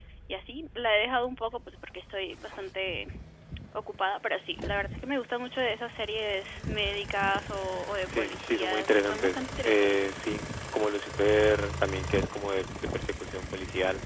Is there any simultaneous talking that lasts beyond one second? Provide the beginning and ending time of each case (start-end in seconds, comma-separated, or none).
8.2-10.3